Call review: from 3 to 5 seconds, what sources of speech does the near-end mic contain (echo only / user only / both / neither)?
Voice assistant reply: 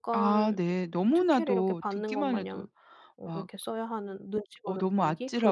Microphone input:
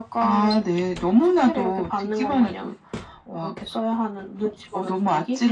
echo only